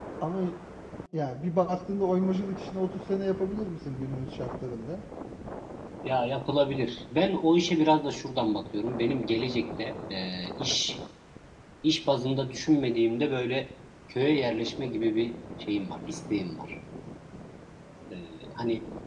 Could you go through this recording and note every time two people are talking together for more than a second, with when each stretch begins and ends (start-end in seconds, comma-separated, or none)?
none